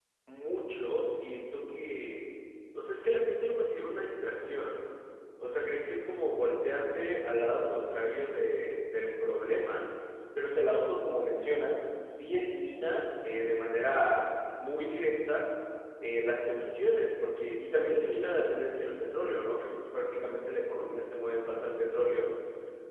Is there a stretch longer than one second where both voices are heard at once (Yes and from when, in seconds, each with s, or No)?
No